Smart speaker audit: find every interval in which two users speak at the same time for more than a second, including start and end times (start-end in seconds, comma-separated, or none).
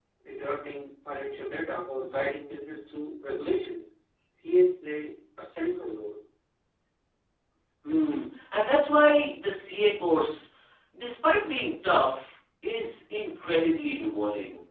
none